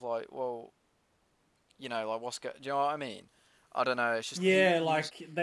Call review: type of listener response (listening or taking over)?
taking over